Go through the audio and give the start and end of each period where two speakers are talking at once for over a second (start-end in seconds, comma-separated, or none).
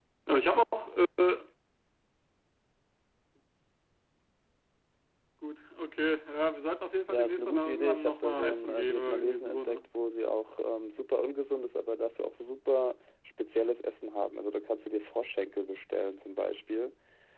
7.1-9.8